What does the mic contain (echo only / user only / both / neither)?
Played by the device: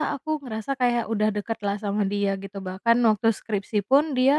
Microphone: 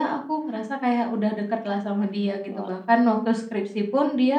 both